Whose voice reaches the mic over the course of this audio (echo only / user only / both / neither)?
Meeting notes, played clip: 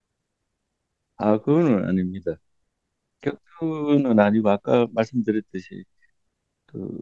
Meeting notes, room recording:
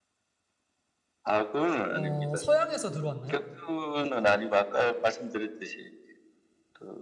both